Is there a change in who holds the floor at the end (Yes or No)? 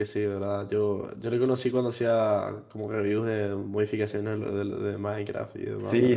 Yes